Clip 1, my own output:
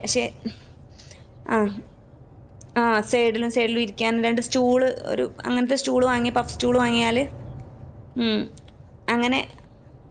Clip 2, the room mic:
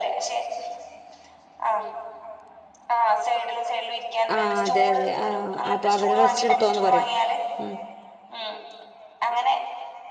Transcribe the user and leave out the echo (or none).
ആഹ് അതെ അതെ ആഹ് അപ്പൊ അവര് റെസ്റ്റ് എടുത്തോന്ന് പറയും ഉം